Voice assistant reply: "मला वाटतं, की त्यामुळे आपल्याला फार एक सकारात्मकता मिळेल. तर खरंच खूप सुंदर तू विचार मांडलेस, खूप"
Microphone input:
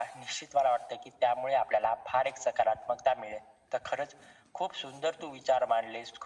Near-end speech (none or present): none